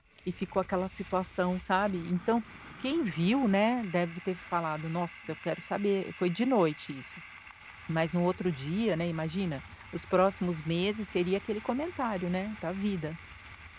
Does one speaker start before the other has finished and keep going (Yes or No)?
No